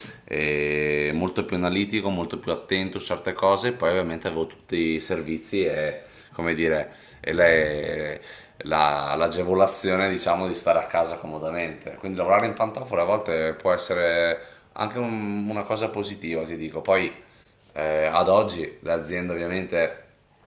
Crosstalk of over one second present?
No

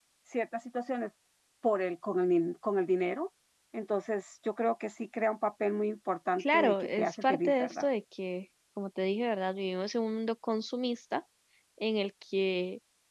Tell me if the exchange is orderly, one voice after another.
No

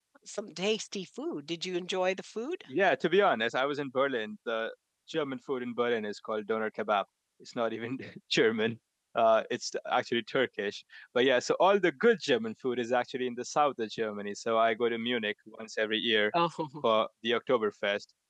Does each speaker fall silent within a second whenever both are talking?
Yes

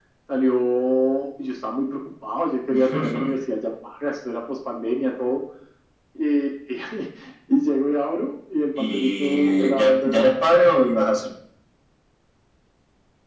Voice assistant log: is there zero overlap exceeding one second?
No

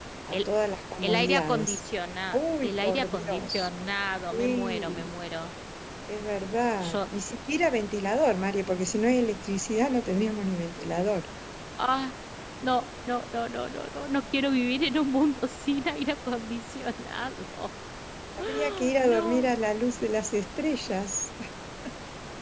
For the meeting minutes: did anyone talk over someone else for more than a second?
Yes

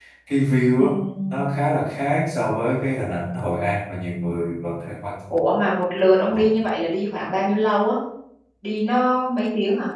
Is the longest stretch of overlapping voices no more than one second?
Yes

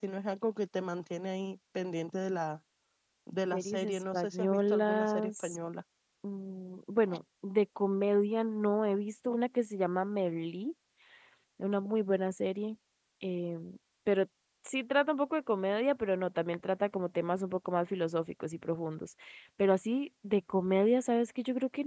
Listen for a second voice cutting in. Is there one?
Yes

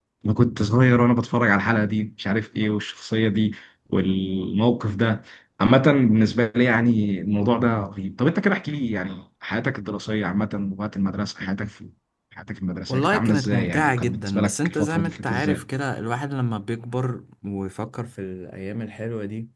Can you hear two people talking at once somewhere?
Yes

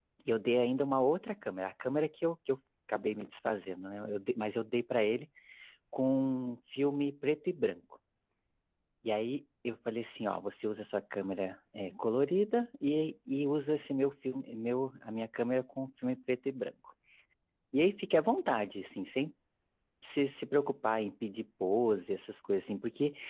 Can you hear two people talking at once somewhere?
No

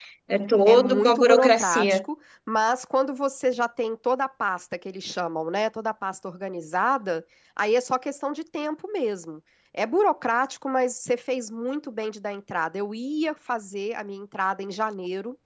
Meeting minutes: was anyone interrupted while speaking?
Yes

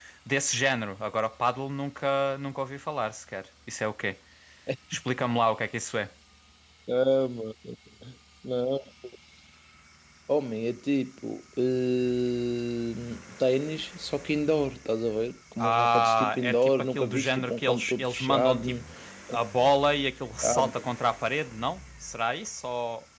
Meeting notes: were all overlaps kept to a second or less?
No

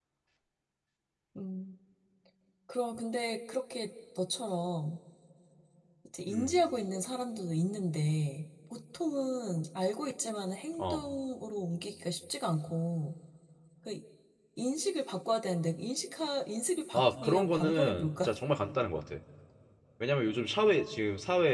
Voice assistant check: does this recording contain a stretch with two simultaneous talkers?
Yes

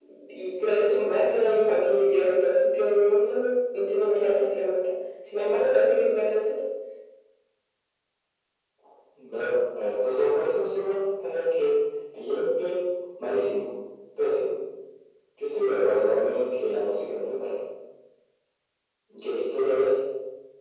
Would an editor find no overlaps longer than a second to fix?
Yes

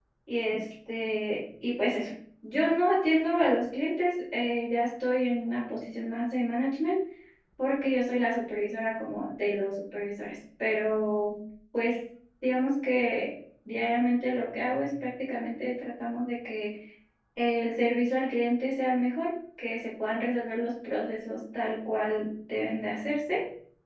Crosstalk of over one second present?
No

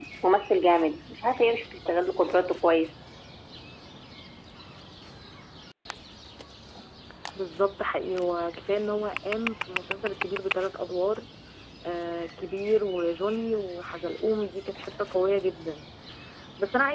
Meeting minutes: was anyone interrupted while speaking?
No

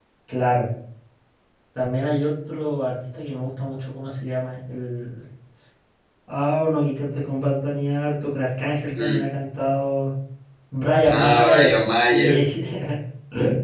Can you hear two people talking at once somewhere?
Yes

